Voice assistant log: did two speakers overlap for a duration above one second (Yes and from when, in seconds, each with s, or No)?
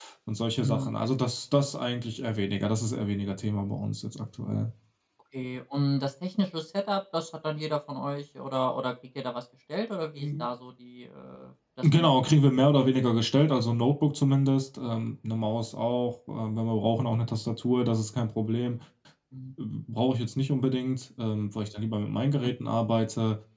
No